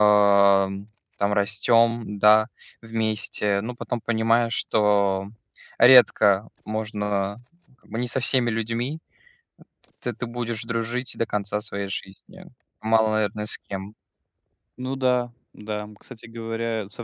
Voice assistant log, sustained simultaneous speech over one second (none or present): none